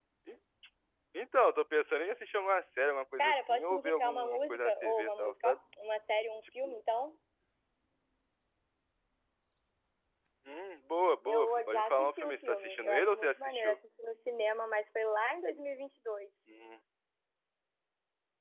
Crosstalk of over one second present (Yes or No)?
Yes